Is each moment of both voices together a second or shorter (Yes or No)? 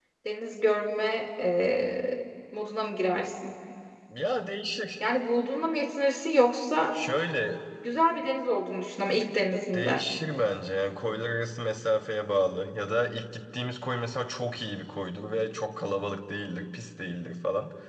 Yes